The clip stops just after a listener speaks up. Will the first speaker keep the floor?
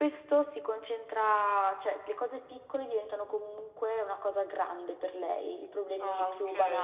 Yes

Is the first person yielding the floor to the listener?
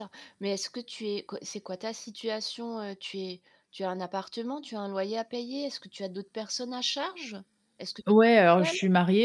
Yes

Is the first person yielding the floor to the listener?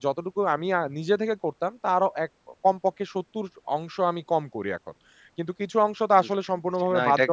Yes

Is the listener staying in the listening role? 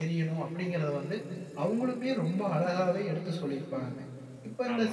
Yes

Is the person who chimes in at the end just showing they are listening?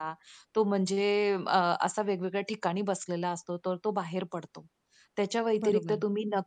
Yes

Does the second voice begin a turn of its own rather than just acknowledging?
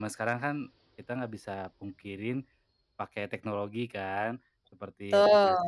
No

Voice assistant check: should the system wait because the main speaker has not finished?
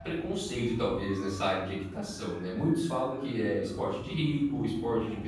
Yes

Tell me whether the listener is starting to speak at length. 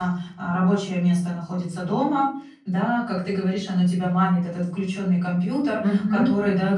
No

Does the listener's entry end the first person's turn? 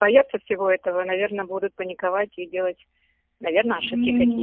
Yes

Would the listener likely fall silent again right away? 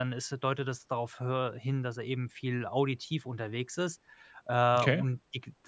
Yes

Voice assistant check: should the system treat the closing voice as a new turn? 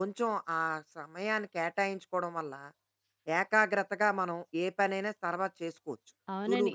Yes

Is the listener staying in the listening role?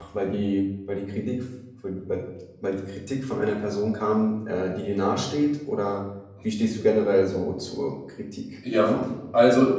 No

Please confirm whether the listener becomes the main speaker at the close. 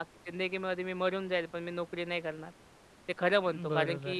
No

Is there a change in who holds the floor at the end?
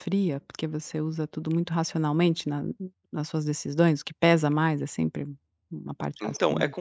Yes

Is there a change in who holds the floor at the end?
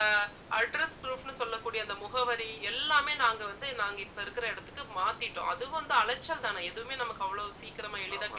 Yes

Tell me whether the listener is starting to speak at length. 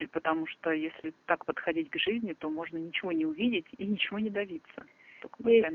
Yes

